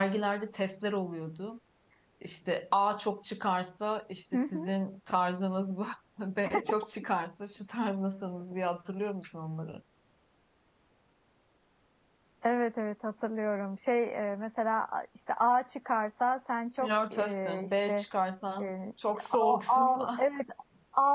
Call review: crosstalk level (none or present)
present